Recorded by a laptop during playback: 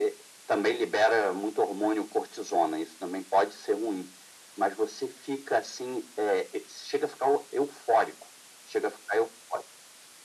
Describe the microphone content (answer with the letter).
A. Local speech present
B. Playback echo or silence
B